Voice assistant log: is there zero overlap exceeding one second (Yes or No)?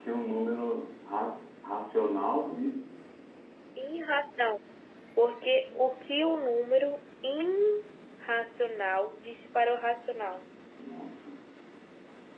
Yes